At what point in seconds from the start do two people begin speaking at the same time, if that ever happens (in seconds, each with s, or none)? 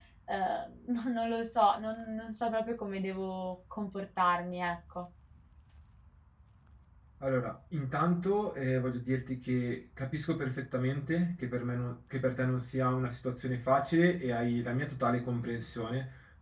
none